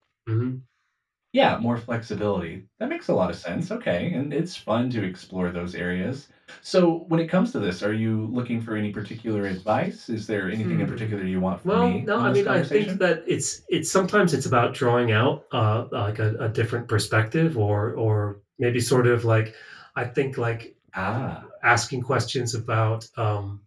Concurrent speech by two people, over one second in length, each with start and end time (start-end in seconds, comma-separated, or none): 11.7-12.9